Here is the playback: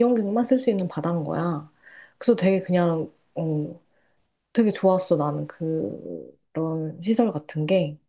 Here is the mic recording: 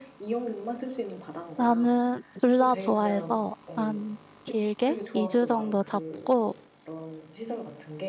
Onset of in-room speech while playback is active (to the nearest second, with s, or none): 2 s